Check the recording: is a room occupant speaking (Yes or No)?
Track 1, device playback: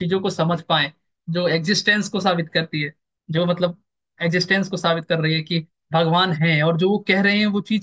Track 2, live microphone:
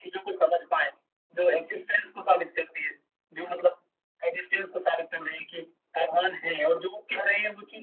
No